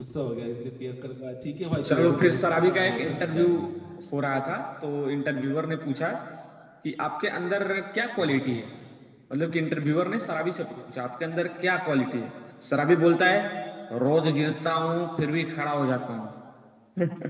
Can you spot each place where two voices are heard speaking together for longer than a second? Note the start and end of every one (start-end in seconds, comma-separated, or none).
1.8-3.5